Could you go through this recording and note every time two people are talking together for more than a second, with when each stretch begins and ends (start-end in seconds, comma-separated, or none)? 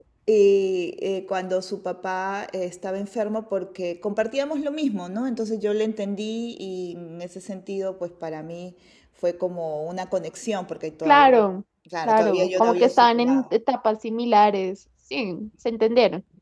12.0-13.4